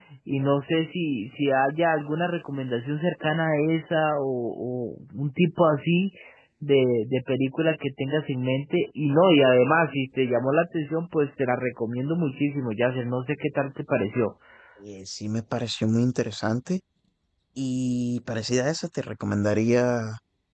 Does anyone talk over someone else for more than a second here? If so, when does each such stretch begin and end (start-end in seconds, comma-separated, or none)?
none